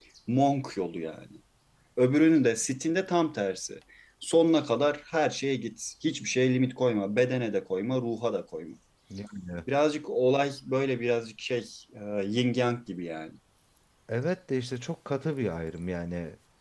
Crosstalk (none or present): none